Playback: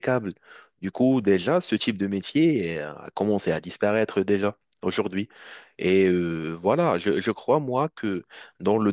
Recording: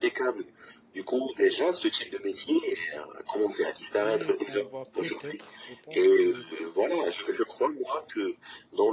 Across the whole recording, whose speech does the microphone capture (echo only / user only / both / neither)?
both